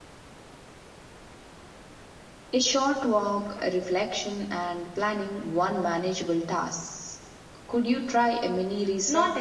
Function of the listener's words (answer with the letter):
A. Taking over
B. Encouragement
A